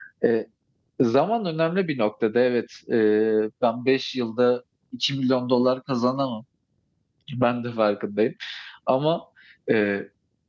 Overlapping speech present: No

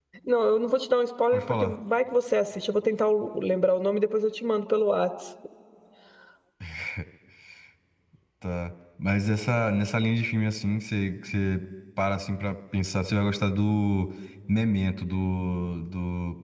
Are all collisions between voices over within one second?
Yes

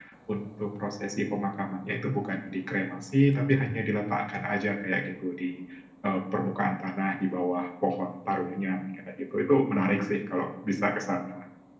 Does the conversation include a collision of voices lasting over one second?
No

